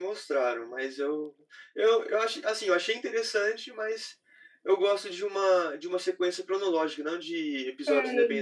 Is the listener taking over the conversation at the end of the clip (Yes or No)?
Yes